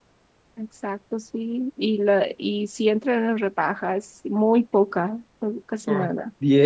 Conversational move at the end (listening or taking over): taking over